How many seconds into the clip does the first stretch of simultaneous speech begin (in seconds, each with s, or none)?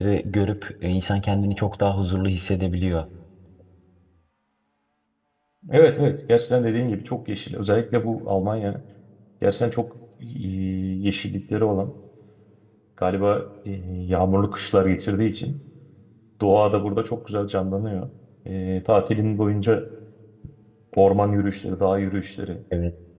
none